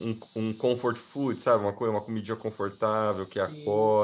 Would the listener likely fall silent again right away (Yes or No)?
No